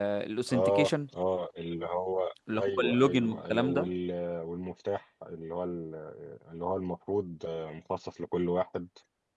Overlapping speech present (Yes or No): Yes